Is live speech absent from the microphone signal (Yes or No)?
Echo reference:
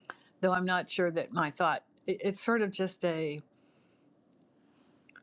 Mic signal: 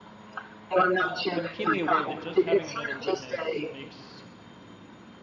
No